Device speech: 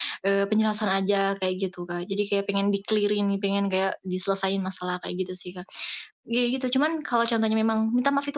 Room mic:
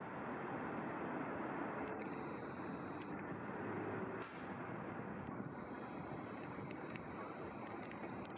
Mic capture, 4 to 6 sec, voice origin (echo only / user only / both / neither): neither